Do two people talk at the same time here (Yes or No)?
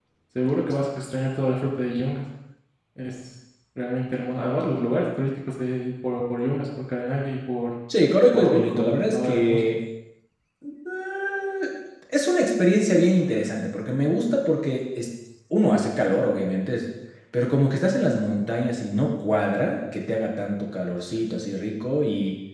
Yes